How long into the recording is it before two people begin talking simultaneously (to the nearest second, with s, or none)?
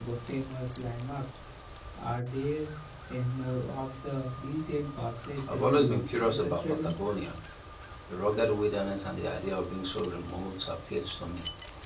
5 s